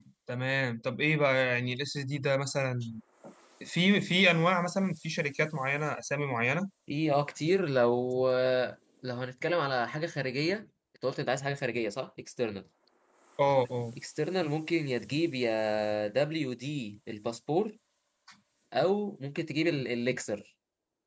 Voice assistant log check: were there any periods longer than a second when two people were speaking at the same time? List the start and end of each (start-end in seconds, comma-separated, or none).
none